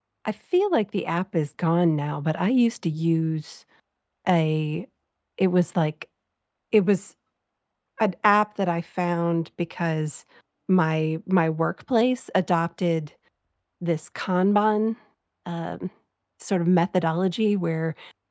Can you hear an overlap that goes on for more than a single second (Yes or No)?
No